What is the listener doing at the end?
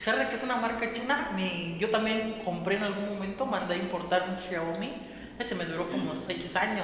listening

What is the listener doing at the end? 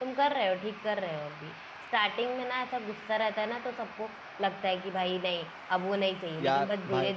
listening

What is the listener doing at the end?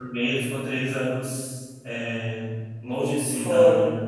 listening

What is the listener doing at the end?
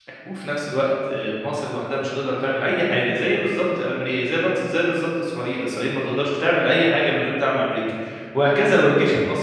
listening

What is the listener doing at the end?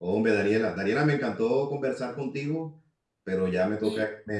listening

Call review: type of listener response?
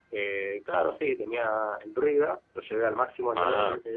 listening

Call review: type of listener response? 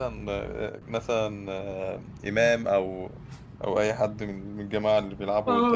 taking over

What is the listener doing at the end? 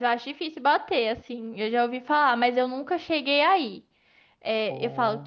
listening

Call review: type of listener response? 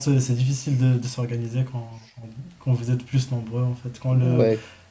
listening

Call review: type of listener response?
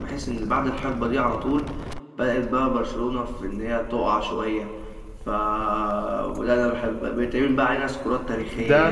taking over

